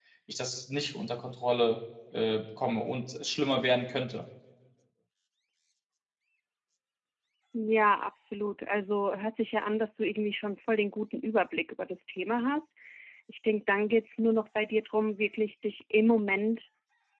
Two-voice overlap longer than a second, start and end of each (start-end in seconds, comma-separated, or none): none